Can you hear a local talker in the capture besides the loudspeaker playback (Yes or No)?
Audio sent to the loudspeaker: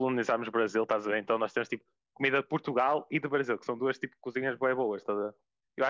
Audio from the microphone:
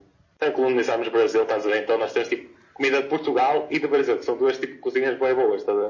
No